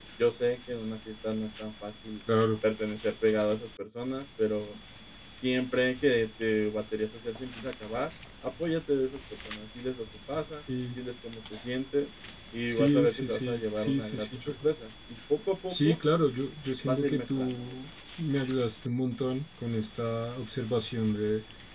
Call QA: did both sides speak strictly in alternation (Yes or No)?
No